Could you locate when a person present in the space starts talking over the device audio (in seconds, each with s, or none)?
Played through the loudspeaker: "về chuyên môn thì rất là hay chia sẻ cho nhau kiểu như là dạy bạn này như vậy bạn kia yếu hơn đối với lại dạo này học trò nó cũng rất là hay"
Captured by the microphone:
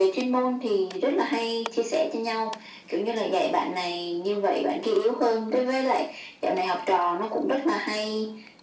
none